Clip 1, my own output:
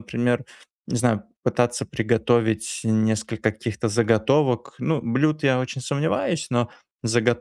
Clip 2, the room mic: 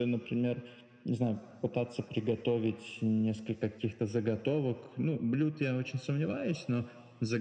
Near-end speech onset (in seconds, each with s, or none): none